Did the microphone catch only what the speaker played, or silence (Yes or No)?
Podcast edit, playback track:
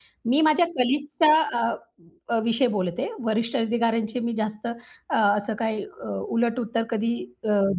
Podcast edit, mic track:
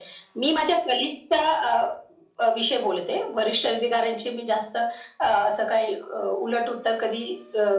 Yes